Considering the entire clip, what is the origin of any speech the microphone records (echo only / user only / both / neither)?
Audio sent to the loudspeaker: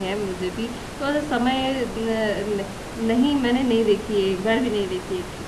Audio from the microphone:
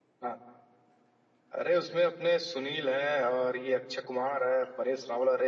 user only